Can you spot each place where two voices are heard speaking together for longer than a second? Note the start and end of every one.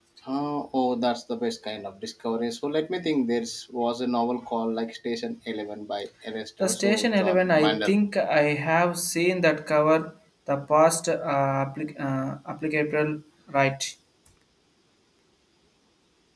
6.6-8.0

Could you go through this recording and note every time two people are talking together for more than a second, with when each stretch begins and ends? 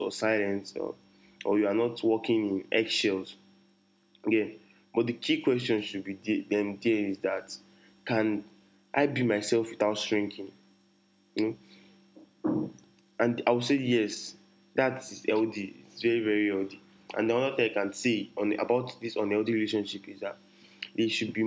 none

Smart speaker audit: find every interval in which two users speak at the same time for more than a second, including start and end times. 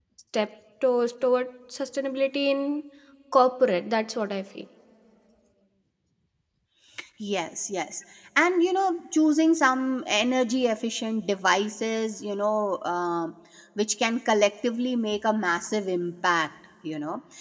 none

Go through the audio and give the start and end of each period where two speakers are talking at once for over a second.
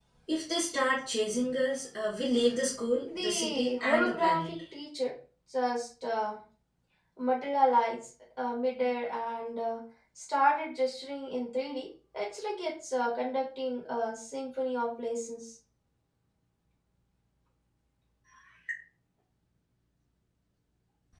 3.0-4.4

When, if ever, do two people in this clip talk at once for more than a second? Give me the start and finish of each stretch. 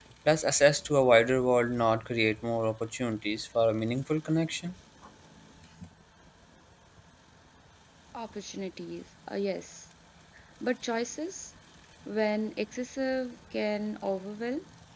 none

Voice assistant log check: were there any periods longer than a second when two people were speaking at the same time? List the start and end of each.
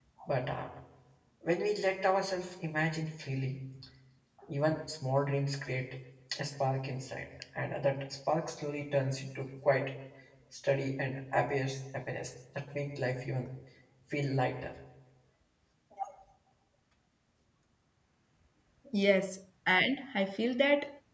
none

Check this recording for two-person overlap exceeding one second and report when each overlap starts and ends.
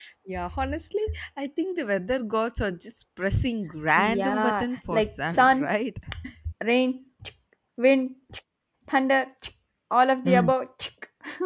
4.0-5.7

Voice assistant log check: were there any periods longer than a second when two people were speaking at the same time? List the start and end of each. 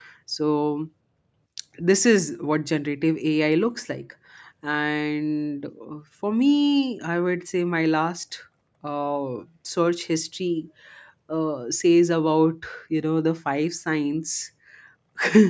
none

